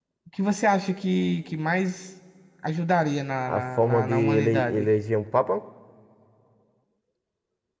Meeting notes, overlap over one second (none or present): present